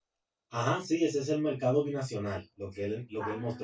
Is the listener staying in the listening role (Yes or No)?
Yes